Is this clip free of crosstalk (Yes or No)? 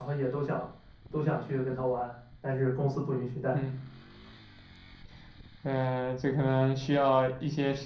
Yes